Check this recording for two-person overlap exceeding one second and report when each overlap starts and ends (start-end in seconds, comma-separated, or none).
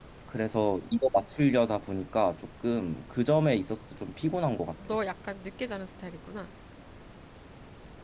none